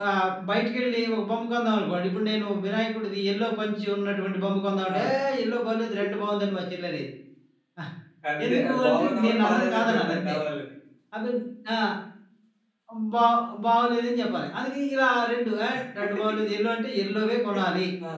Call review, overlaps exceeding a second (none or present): present